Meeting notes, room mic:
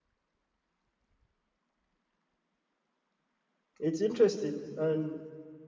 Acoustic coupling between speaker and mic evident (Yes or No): No